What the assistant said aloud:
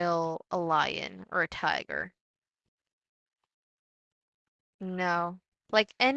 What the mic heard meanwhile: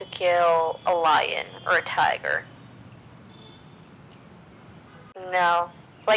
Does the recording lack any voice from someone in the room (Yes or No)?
Yes